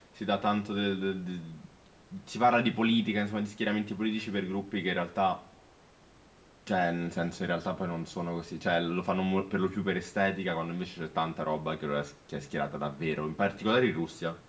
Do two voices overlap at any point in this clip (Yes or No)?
No